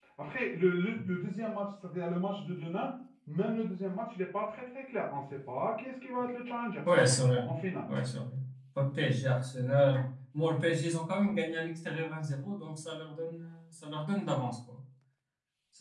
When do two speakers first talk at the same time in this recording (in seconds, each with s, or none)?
none